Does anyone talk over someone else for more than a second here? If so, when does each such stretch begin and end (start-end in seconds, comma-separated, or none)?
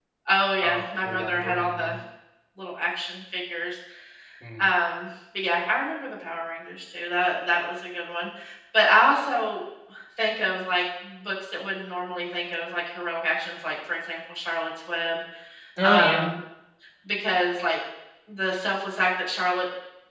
0.6-1.9